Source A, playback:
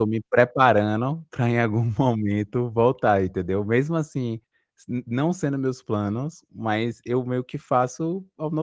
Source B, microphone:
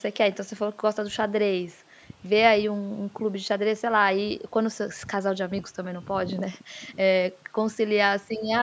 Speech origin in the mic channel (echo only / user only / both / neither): user only